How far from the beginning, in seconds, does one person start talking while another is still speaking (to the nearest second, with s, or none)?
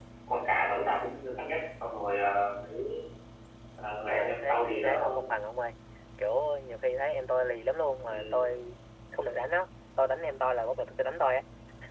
4 s